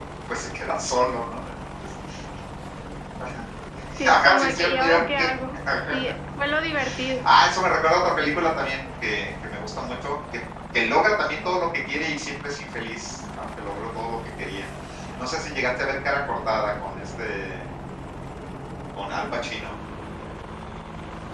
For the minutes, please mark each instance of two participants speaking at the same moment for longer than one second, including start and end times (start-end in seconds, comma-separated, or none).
4.0-5.3